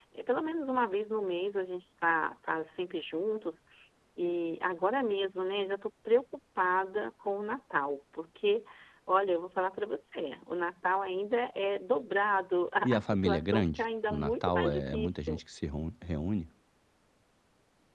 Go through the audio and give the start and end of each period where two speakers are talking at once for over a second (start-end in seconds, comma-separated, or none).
12.8-15.4